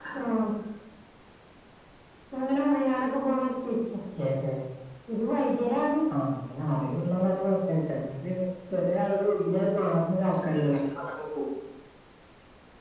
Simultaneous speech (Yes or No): No